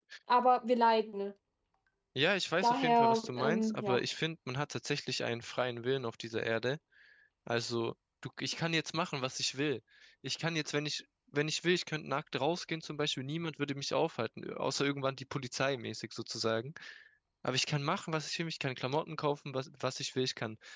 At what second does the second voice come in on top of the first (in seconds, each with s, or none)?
2.6 s